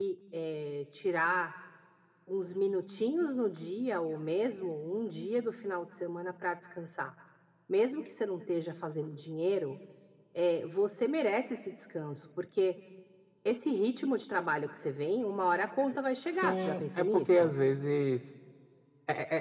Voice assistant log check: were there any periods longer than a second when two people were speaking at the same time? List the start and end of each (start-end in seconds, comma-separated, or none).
16.2-17.5